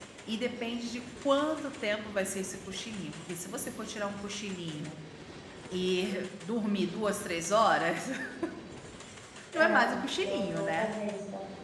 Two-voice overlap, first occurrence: 9.5 s

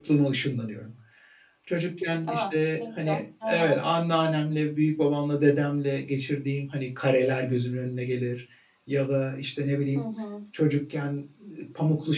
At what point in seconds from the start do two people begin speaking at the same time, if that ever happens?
2.3 s

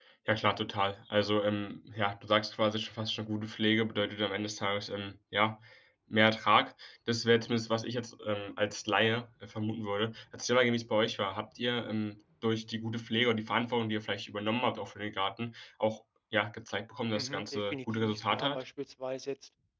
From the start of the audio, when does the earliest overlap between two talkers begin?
17.1 s

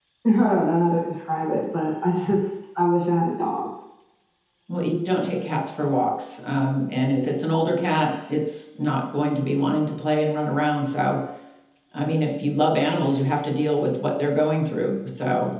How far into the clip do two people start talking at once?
none

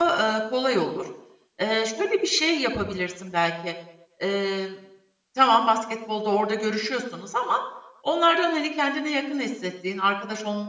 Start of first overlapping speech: none

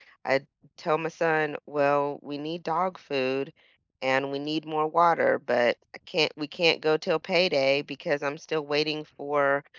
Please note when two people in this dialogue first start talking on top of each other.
none

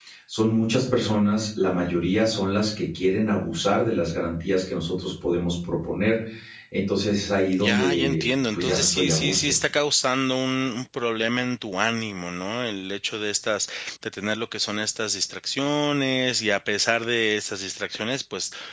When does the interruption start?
7.6 s

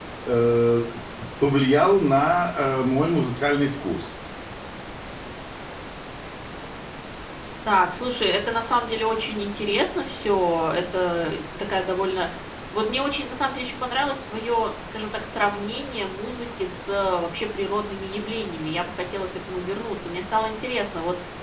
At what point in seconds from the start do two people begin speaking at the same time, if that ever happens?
none

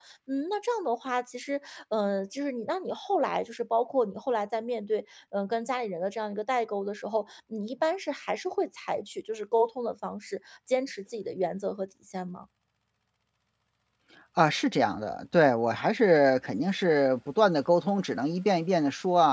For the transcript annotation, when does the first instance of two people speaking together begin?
none

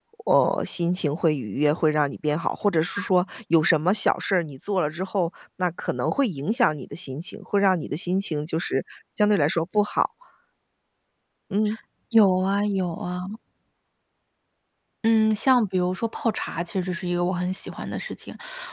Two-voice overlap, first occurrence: none

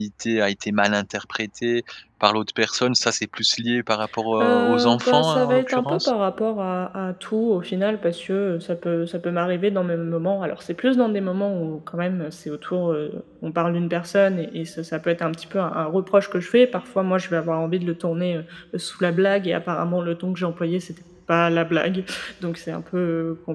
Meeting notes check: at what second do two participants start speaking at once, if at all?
4.4 s

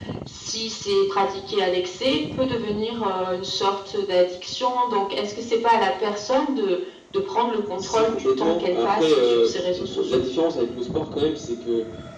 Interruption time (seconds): 7.8 s

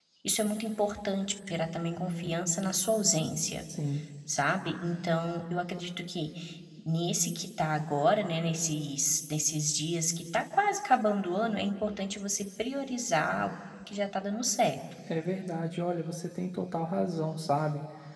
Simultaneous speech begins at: none

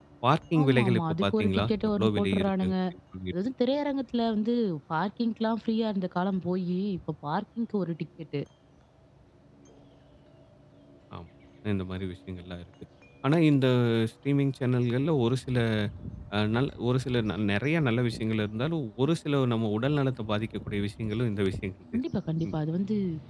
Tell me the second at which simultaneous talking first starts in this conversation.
0.6 s

